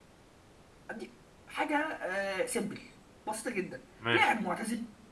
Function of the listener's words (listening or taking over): listening